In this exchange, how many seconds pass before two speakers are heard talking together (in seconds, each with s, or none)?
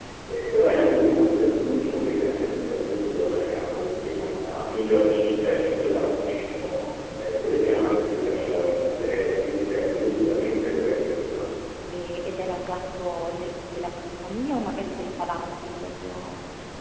none